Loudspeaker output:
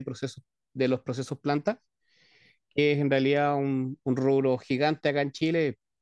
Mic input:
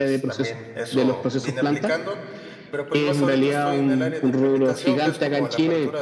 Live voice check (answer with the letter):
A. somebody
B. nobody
A